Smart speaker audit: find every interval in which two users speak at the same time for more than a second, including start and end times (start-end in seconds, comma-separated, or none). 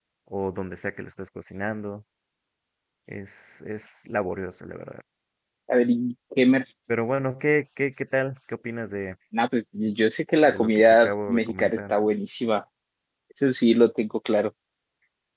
10.4-11.9